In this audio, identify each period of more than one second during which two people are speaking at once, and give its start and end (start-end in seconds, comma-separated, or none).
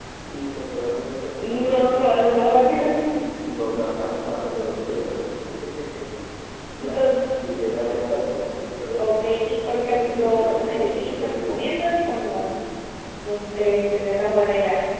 1.3-2.9, 9.8-11.7